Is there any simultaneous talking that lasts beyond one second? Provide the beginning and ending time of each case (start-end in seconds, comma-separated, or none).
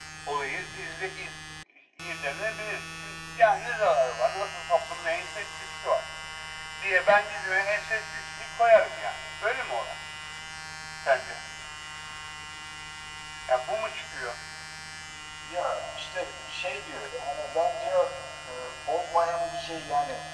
none